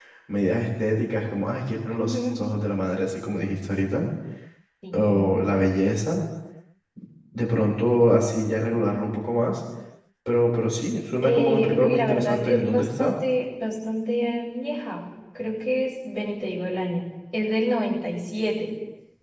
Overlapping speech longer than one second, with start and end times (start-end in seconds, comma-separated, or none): 11.2-13.1